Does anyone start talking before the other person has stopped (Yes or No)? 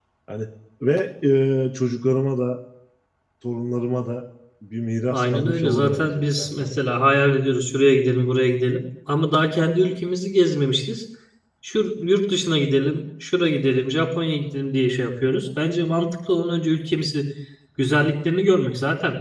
Yes